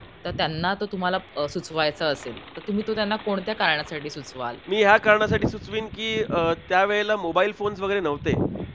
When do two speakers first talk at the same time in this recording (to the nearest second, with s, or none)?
none